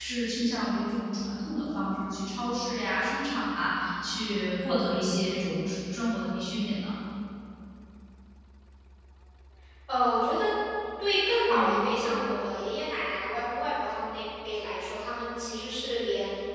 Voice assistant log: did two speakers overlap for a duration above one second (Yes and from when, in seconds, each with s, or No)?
No